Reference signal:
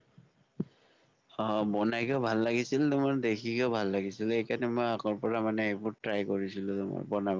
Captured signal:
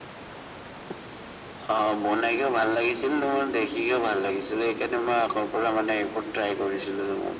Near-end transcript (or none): none